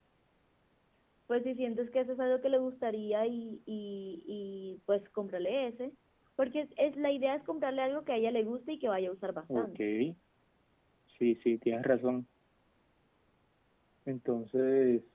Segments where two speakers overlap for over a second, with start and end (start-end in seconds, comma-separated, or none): none